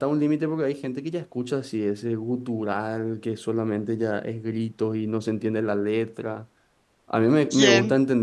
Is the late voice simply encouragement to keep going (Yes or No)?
Yes